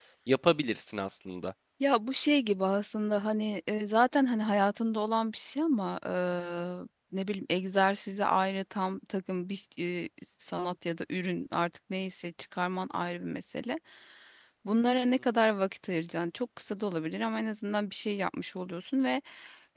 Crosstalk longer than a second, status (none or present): none